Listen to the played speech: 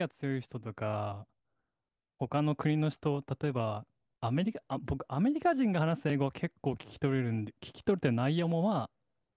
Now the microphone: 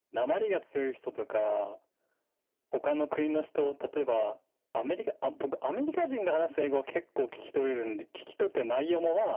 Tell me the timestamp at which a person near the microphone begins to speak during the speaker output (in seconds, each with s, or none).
none